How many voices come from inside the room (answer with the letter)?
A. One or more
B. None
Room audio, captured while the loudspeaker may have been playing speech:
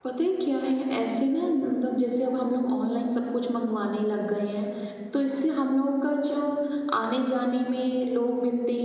A